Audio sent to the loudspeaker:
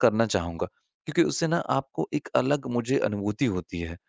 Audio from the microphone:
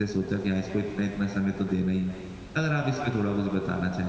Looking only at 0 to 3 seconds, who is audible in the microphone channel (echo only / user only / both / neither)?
user only